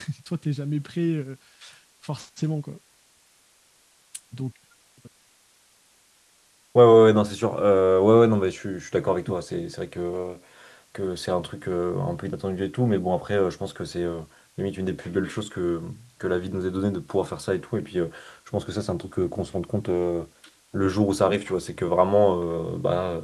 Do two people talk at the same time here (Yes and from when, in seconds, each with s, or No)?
No